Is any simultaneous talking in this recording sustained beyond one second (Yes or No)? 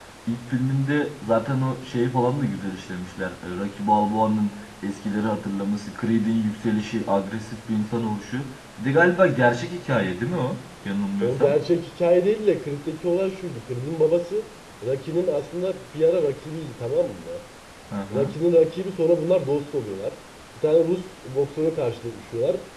No